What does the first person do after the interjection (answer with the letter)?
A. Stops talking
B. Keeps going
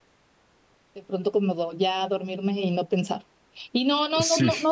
B